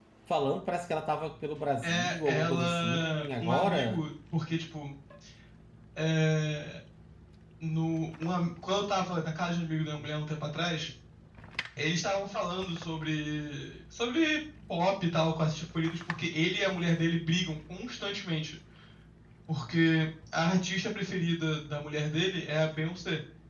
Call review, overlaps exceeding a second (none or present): present